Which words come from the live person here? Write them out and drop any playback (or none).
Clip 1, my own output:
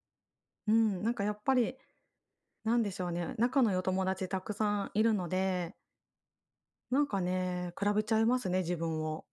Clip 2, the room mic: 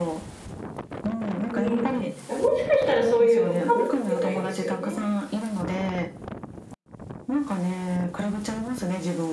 うん。あ、もしかしたらそういうのかもしれないですよね。